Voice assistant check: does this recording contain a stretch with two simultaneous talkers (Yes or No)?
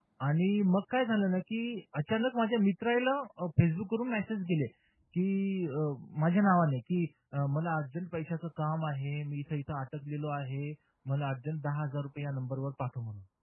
No